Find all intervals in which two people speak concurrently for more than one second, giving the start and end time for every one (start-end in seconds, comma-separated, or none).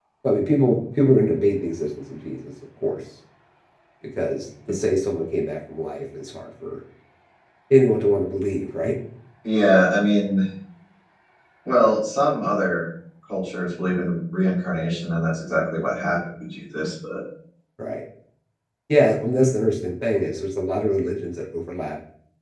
none